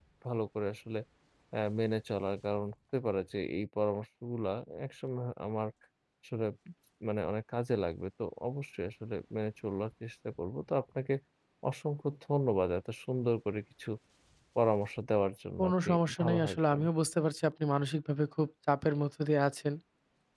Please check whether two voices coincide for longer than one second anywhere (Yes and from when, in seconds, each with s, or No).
Yes, from 15.6 s